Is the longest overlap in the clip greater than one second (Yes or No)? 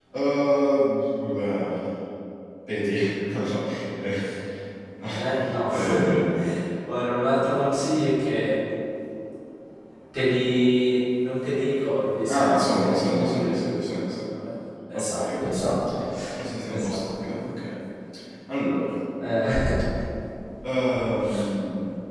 Yes